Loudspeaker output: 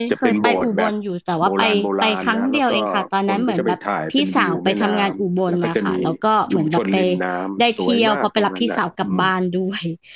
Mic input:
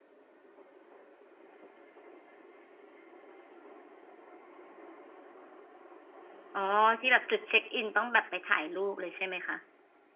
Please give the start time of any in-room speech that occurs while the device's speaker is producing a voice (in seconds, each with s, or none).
6.5 s